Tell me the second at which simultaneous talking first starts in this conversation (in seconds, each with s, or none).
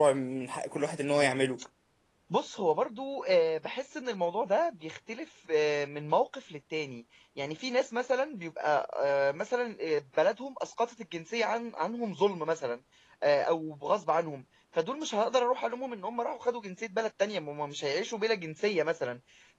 none